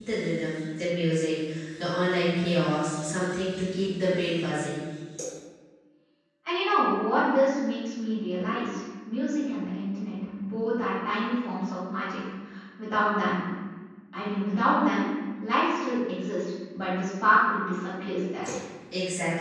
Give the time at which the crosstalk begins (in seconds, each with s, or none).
none